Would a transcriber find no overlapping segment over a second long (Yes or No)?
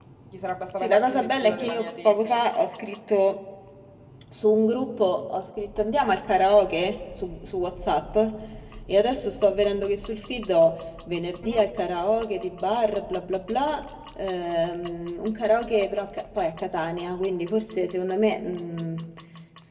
No